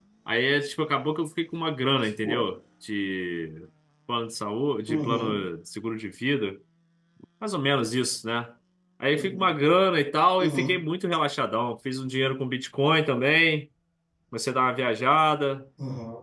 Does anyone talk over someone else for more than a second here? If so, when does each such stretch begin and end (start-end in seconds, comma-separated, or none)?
none